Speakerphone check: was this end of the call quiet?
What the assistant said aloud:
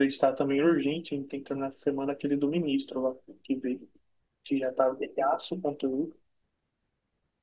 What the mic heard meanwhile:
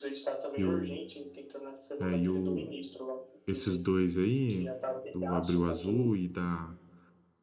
No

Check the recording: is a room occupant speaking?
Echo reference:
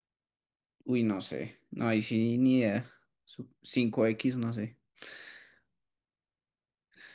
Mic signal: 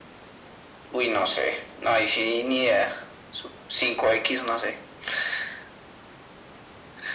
No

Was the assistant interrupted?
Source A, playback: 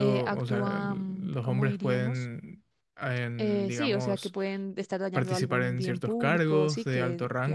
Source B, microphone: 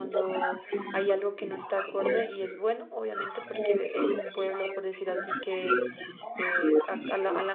Yes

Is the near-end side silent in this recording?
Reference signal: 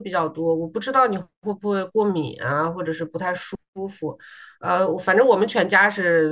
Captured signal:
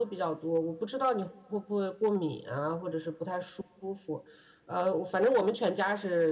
Yes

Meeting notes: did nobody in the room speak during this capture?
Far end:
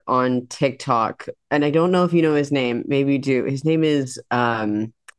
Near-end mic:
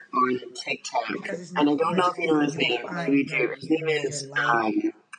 No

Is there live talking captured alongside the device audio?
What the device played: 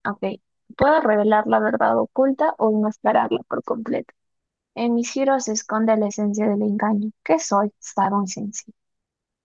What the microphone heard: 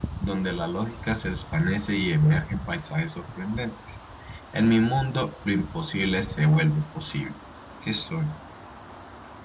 Yes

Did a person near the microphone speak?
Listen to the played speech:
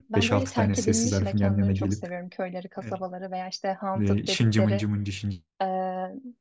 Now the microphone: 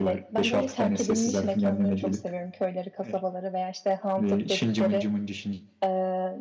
No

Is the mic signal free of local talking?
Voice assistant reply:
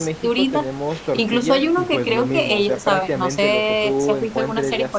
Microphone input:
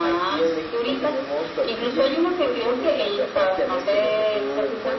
Yes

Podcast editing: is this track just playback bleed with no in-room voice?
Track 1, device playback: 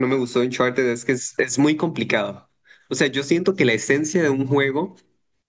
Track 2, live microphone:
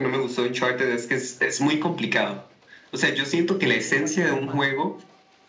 No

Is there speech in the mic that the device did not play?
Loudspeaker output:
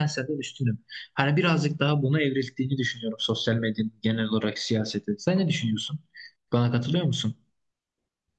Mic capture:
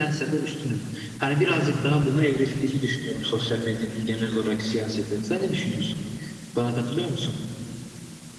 Yes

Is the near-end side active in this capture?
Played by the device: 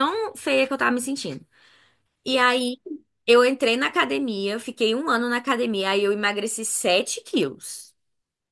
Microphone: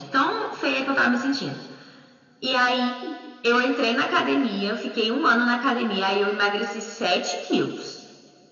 No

